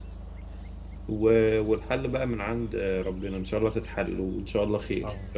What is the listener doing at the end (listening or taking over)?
taking over